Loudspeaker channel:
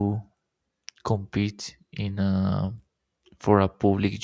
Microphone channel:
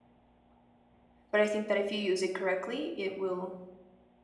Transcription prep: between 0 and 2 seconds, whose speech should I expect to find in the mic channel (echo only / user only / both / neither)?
user only